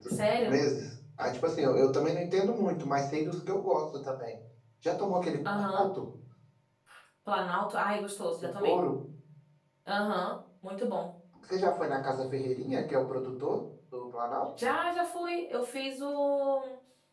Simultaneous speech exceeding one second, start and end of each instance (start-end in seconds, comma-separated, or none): none